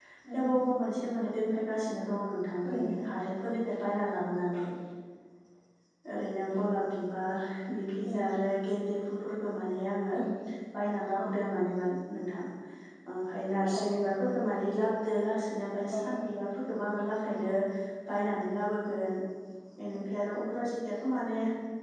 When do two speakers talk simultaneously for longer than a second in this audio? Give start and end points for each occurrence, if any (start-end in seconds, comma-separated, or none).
none